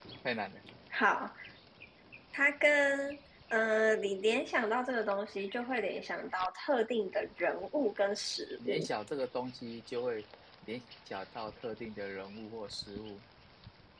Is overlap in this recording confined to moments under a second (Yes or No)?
Yes